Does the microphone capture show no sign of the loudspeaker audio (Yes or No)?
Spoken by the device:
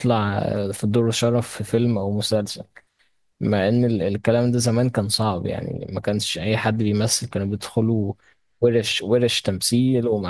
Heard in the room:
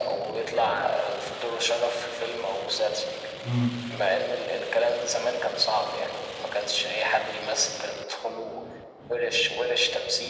No